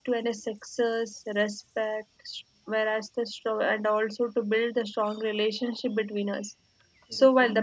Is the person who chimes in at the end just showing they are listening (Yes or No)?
Yes